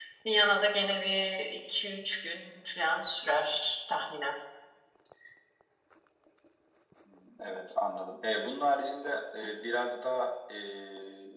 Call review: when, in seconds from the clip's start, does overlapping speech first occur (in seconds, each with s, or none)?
none